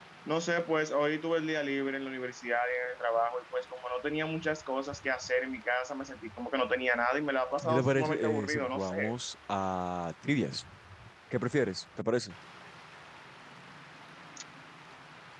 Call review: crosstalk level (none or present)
present